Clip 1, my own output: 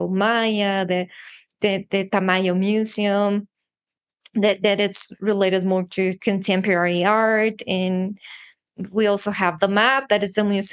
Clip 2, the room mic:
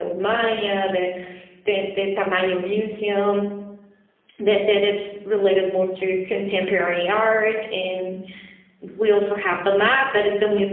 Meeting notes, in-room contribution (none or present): none